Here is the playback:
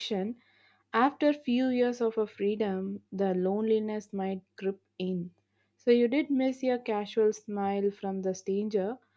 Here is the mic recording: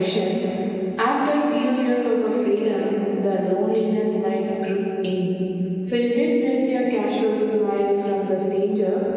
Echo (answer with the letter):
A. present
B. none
A